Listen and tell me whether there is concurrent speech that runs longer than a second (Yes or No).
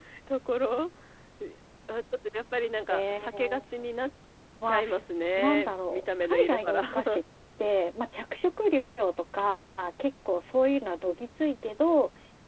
Yes